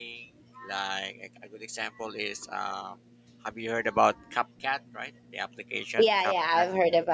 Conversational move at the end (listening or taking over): taking over